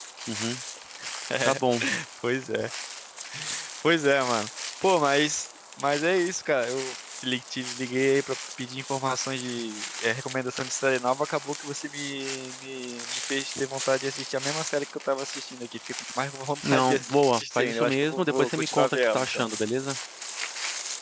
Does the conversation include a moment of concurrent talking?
Yes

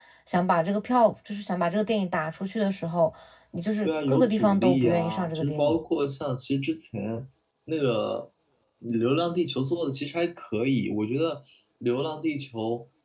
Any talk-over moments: Yes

